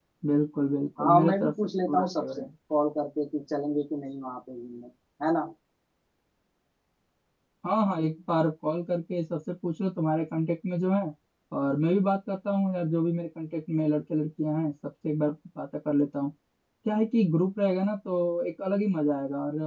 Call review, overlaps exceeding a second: present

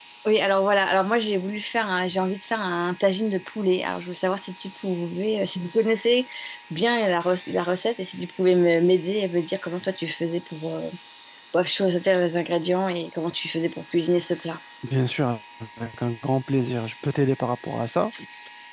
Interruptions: none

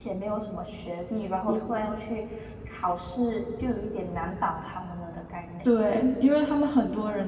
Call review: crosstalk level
none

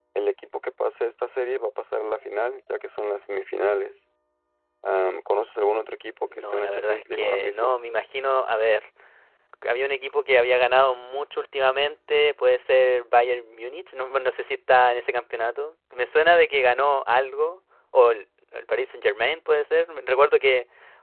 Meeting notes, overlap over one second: present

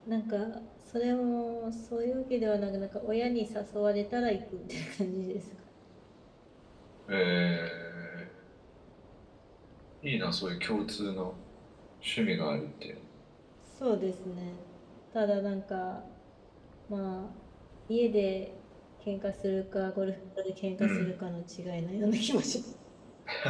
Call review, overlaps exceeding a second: none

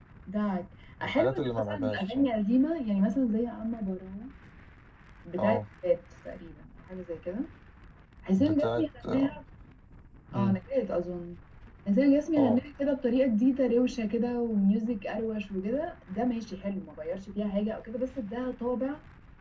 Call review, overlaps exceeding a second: present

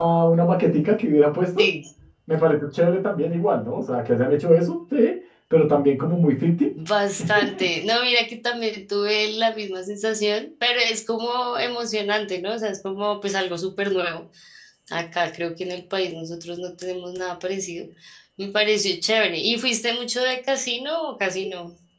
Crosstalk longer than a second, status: none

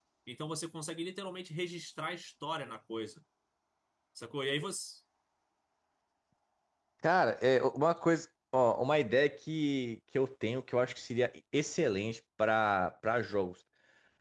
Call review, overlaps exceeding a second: none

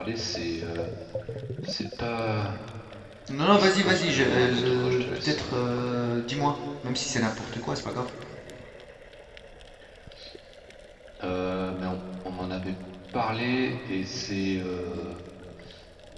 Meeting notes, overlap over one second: present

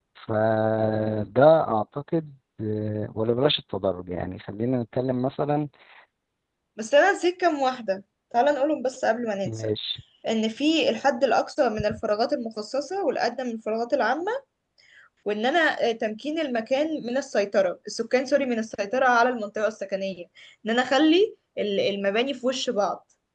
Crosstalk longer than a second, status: none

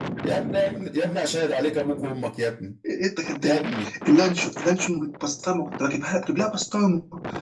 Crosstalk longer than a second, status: none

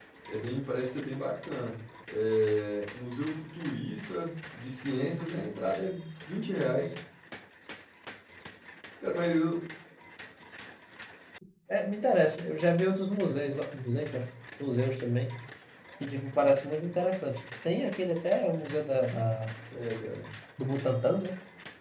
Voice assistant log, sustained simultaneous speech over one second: none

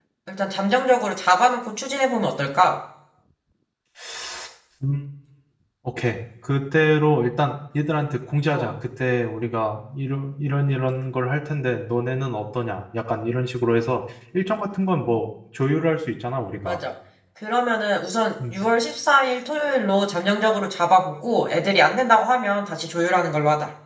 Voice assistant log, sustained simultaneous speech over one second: none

